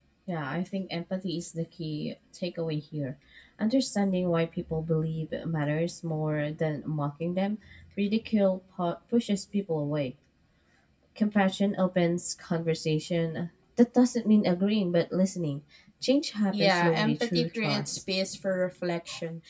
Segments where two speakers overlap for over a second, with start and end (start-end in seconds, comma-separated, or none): 16.5-18.0